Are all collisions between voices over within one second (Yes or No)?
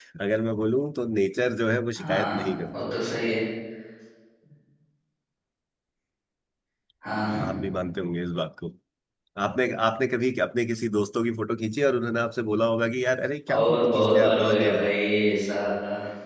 No